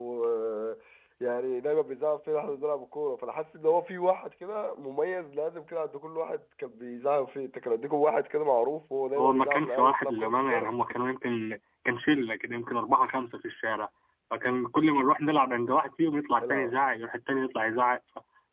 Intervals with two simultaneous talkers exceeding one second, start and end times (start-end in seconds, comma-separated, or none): 9.2-10.7